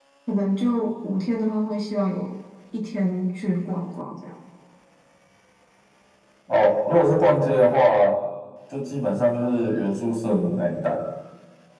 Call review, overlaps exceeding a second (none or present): none